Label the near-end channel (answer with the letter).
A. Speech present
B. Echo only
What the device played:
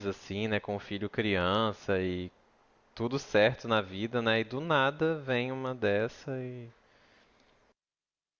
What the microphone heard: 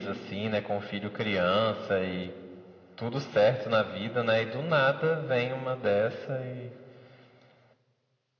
B